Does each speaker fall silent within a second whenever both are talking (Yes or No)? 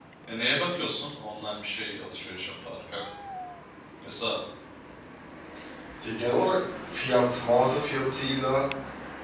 Yes